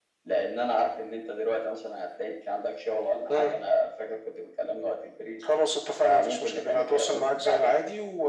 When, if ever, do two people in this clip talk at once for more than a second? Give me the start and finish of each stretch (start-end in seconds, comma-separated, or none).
6.0-7.8